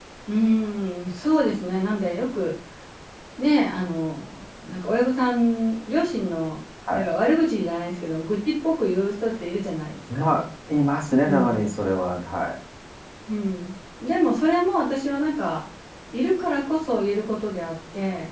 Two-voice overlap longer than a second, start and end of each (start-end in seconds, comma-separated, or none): none